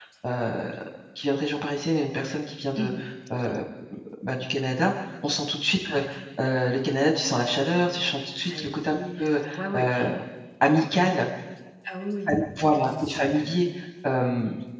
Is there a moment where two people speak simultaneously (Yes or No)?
Yes